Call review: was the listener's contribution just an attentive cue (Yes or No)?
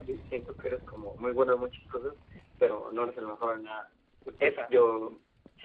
Yes